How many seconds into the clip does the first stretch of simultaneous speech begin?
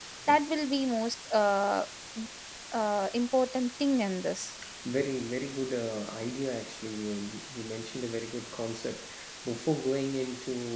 none

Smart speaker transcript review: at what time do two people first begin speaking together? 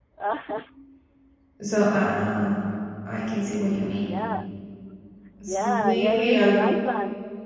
5.5 s

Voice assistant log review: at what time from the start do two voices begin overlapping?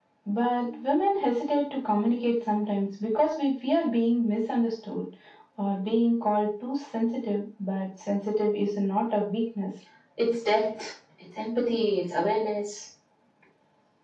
none

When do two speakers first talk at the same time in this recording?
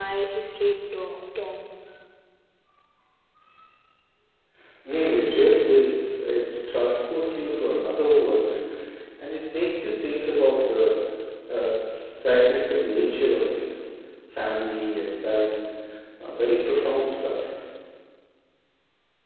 none

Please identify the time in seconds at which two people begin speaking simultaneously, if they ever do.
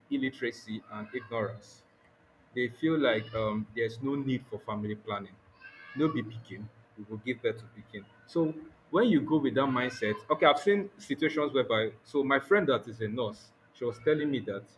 none

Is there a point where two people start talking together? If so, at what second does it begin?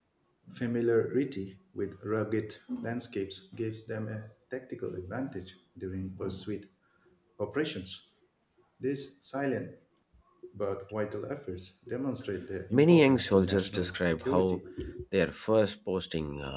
12.7 s

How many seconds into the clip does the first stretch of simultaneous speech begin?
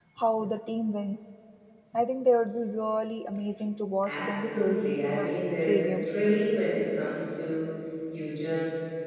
4.0 s

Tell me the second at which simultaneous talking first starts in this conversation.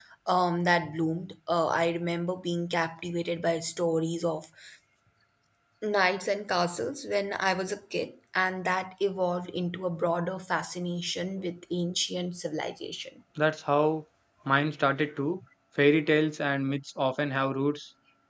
none

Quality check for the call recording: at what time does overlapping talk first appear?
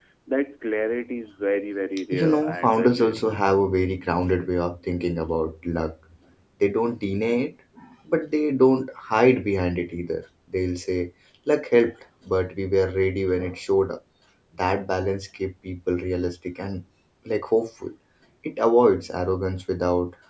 2.1 s

